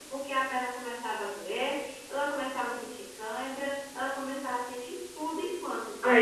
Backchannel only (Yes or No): No